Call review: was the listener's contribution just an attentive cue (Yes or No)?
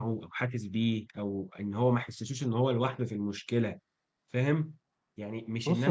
Yes